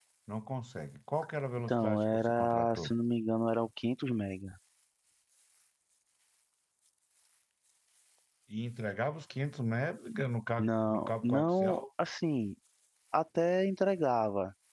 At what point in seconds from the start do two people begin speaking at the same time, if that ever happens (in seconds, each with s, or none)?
1.7 s